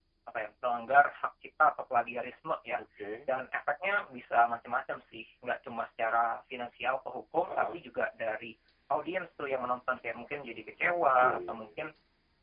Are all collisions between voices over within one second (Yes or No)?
Yes